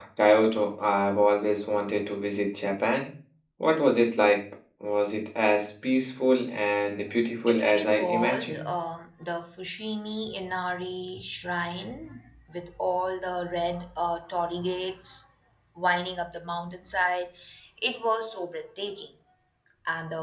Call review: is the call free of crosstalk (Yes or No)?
No